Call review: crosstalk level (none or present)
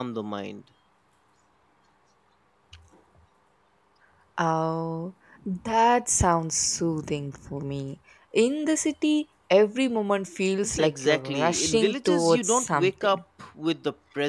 present